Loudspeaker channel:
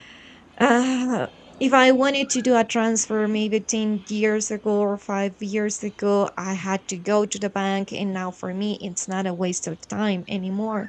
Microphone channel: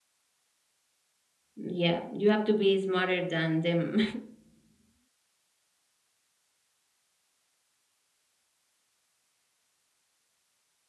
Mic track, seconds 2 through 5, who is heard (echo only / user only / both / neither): user only